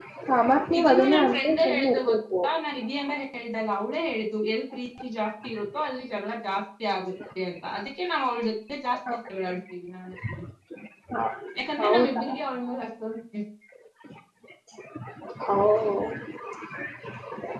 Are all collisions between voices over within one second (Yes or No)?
No